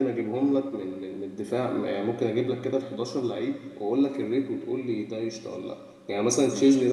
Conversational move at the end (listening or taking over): listening